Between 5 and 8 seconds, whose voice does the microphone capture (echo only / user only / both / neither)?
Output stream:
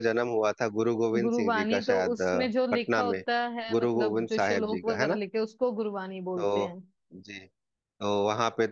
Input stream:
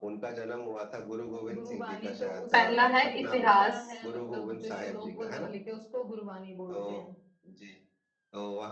echo only